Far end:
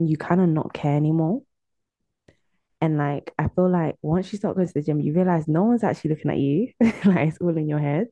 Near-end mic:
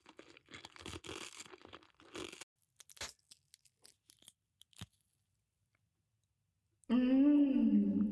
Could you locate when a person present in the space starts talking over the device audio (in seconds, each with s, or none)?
6.9 s